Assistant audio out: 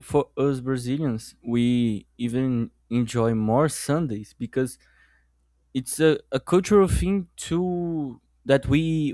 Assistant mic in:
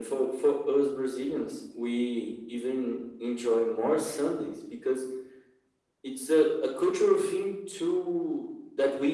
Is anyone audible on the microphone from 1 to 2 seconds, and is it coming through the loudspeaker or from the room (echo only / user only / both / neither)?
echo only